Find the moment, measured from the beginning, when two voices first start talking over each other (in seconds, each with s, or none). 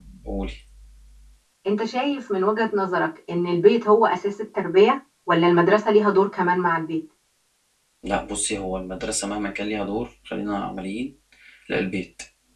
none